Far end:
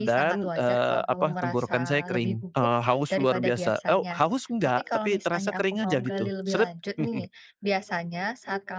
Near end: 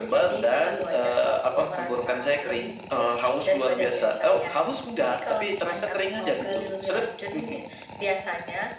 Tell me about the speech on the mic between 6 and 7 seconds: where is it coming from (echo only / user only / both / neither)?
echo only